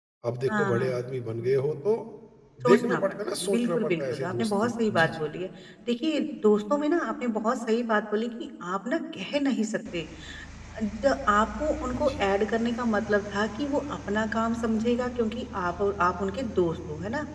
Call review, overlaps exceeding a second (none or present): present